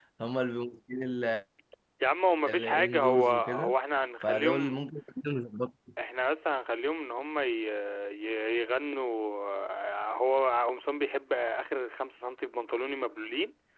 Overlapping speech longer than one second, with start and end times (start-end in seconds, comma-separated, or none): 2.5-3.7